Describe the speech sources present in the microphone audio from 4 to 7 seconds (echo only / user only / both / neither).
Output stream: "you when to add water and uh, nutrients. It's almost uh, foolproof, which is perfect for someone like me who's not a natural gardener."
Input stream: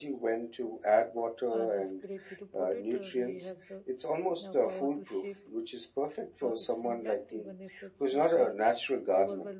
both